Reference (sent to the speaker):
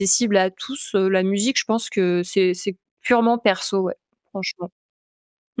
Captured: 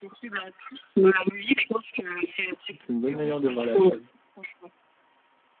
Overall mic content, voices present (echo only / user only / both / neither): both